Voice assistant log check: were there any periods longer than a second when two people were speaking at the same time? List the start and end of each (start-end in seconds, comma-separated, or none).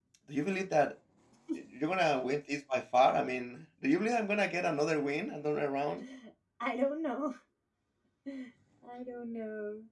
none